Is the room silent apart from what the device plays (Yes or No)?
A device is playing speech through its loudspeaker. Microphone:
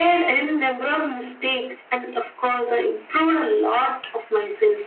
Yes